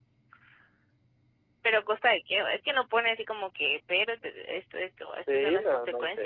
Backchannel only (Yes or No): No